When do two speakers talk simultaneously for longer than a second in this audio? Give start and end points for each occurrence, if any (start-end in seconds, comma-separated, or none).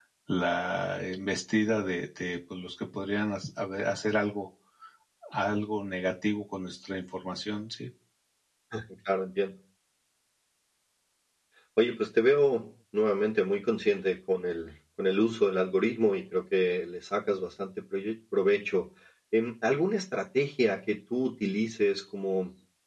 none